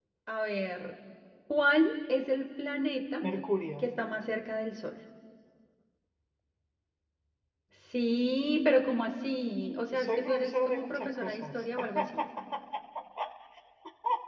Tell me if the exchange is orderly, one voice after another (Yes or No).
No